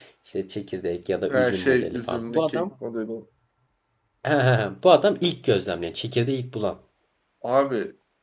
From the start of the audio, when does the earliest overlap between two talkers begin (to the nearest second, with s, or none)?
1 s